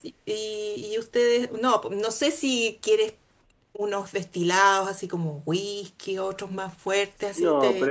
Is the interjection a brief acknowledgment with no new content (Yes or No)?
No